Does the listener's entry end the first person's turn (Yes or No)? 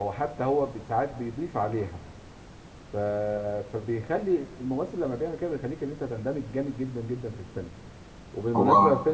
No